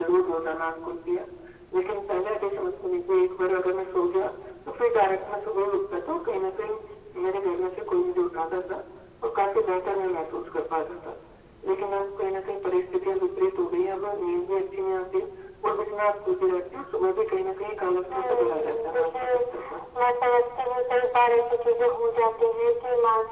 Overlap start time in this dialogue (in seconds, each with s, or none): 18.1 s